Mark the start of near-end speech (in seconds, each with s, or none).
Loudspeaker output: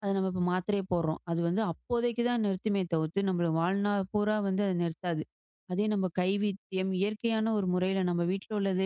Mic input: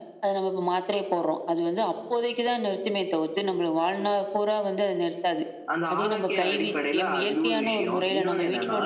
5.7 s